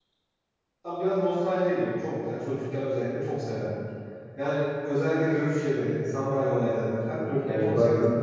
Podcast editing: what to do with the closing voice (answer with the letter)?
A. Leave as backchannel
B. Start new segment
A